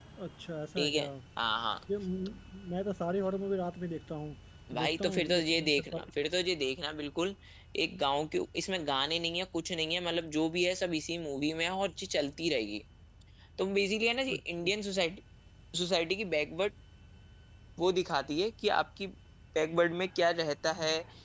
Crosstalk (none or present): present